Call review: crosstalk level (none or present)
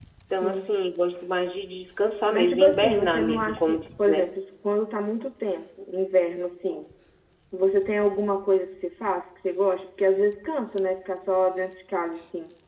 present